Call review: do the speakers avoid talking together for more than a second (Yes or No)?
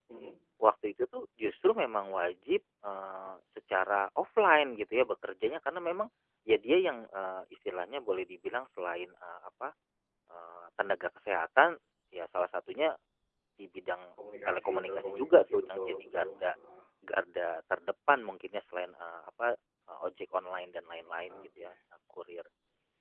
No